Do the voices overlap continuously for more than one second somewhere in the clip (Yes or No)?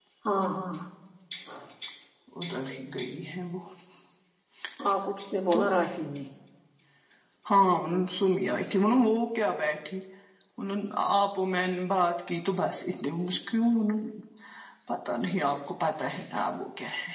No